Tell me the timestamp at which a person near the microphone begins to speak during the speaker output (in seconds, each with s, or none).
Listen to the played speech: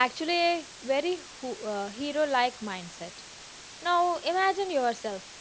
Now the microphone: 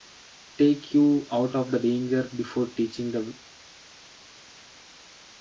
0.6 s